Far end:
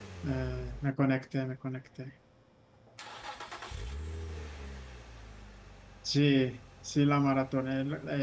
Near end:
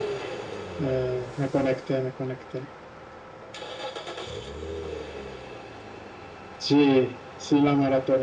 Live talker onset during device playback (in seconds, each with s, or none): none